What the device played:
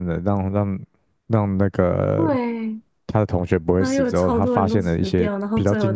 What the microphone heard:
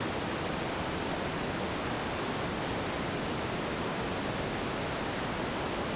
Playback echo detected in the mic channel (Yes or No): No